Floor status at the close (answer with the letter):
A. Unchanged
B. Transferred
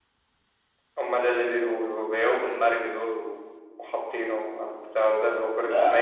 B